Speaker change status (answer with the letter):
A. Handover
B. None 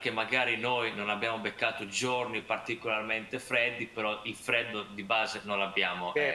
A